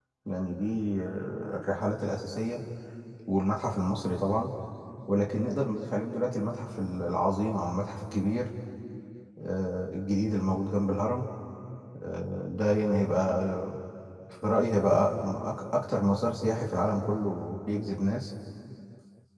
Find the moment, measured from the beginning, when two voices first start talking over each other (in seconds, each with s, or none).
none